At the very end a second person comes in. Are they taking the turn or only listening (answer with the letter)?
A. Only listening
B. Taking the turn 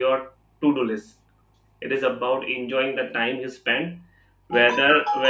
A